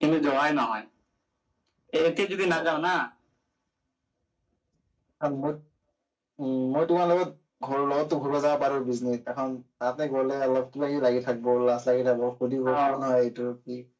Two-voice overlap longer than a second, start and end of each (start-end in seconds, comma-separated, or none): none